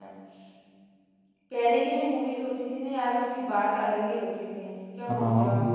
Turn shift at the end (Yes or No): Yes